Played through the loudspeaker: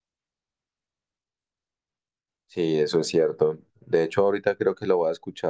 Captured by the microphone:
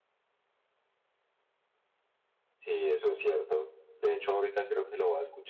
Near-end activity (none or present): none